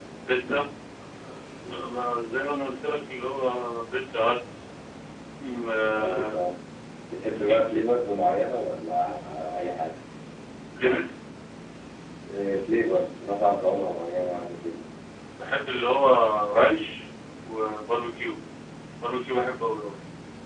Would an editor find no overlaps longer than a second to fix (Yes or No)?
Yes